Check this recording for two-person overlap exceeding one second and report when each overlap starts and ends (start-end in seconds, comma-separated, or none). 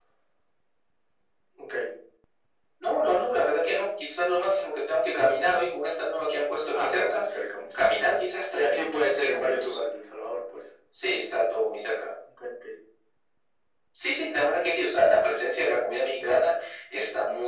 8.6-9.8